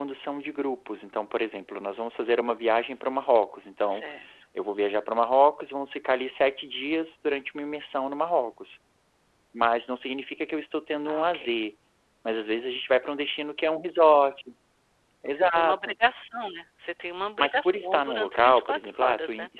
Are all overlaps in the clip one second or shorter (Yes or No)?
No